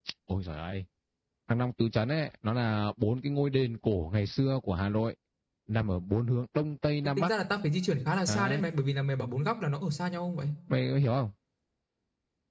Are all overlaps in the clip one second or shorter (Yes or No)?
Yes